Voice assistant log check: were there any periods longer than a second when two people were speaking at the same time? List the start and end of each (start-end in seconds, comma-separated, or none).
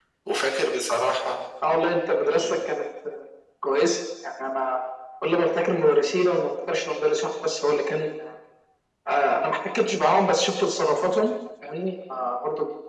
none